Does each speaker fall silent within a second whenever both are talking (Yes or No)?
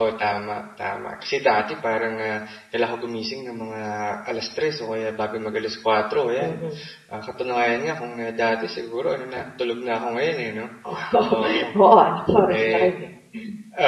Yes